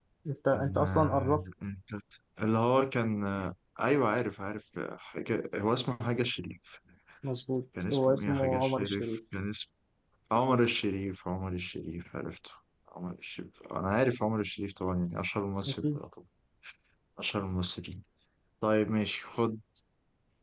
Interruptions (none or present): present